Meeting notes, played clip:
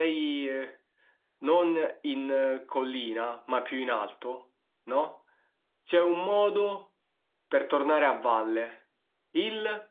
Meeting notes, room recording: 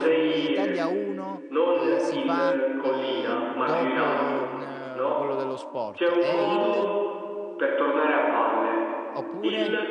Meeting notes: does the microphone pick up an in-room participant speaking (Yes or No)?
Yes